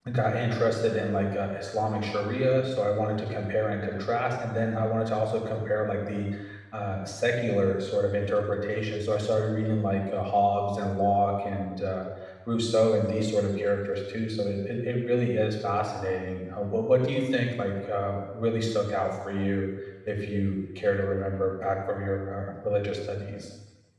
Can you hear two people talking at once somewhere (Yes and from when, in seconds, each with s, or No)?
No